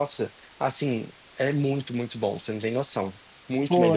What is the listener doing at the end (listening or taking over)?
taking over